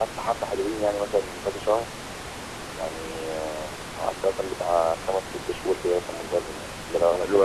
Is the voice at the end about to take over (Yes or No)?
Yes